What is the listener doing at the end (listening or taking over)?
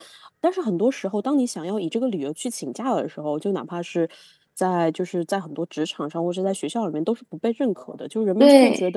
listening